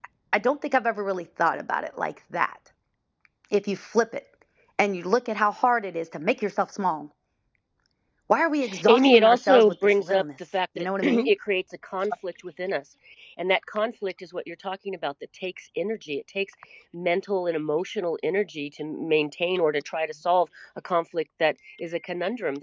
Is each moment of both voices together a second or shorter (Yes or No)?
No